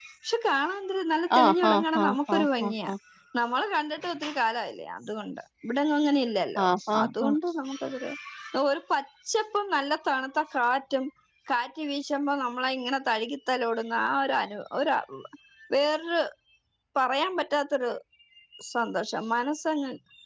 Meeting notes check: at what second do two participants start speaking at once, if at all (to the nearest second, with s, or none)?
1 s